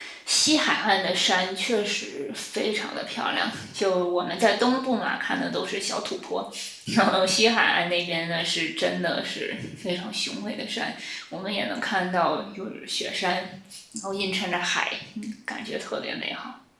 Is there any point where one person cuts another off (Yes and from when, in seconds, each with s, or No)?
No